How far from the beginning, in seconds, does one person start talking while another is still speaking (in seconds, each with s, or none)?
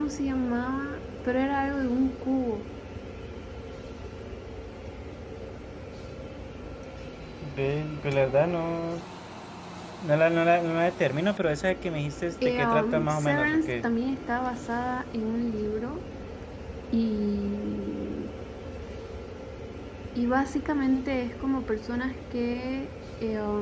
12.4 s